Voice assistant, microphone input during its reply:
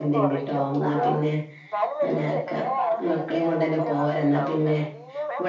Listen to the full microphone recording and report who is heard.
both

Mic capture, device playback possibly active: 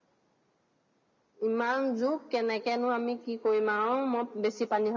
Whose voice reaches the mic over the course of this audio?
echo only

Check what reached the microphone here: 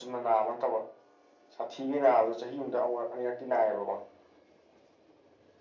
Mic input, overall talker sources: echo only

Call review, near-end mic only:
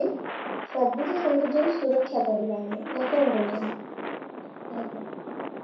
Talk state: echo only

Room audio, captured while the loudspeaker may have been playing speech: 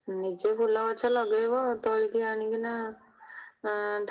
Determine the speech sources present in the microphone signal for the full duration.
echo only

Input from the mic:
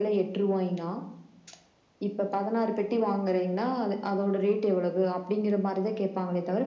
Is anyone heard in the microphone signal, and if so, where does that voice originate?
echo only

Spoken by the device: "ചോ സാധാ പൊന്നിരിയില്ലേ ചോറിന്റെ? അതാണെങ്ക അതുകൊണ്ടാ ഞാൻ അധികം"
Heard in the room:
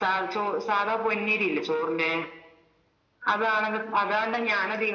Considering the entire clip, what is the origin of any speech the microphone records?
echo only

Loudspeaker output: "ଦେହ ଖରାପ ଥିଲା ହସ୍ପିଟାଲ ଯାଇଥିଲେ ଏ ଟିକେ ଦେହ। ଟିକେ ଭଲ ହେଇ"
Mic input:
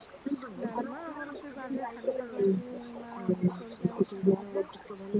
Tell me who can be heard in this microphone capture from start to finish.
both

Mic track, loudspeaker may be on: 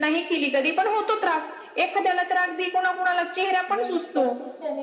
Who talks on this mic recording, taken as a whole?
both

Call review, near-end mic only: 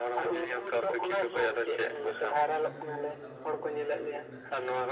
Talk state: both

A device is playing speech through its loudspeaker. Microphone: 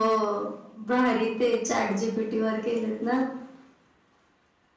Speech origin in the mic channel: echo only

